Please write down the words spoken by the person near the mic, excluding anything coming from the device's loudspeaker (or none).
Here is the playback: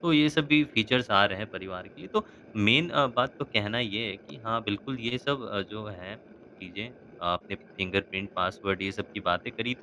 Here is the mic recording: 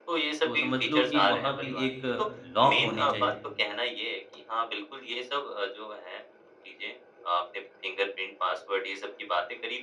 तो समझ लो कि वहाँ भी एक लॉक होनी चाहिए।